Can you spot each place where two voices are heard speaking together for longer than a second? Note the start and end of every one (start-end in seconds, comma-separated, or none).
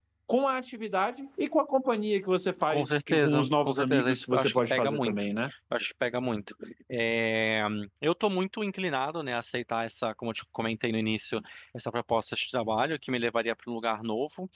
2.7-5.2